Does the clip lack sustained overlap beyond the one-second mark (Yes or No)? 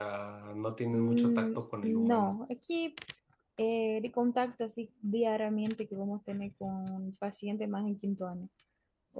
No